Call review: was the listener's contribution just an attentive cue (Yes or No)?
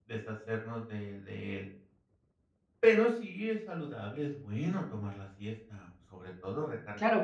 No